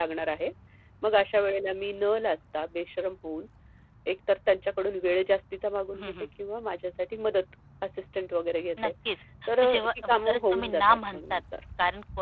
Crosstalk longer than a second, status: present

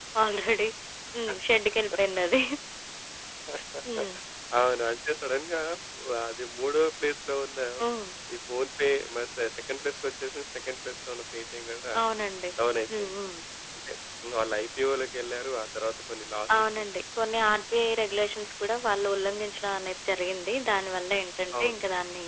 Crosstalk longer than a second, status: none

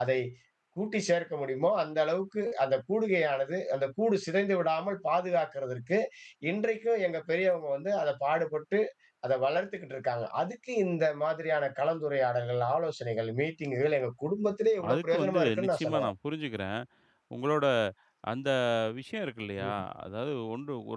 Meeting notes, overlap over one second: present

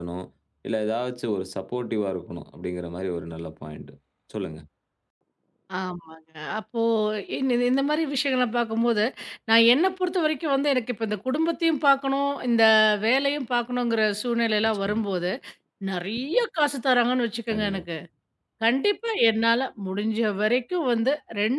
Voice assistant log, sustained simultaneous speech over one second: none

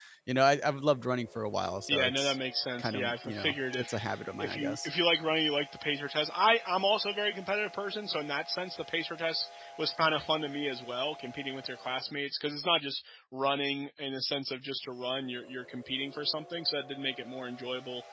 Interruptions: present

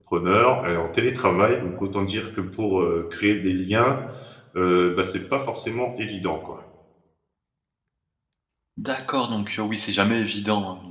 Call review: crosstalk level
none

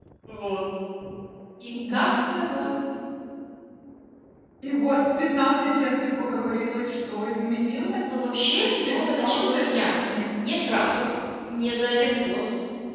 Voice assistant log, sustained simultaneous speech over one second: present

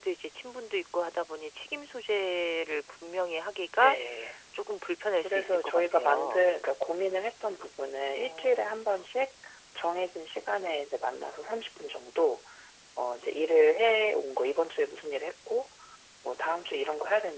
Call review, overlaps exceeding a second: present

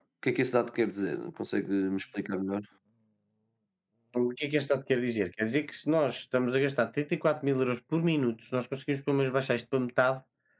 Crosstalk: none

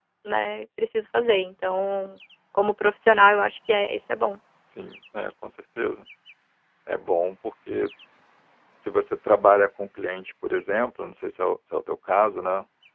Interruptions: none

